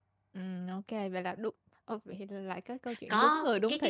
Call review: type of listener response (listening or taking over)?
taking over